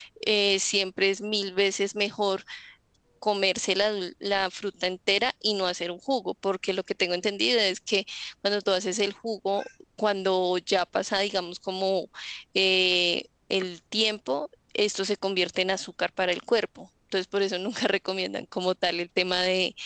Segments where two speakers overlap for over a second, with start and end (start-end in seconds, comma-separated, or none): none